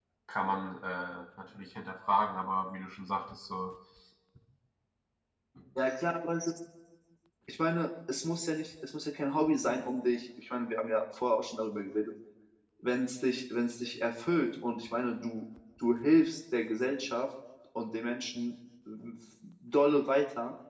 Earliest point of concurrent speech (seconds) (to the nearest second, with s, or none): none